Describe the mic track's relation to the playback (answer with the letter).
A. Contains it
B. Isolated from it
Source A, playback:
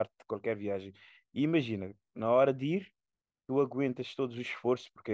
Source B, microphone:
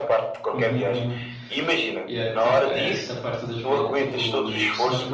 A